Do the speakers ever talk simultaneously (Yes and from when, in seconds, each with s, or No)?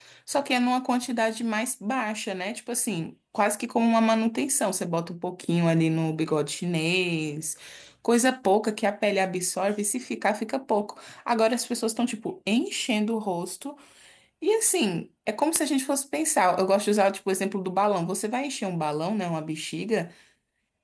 No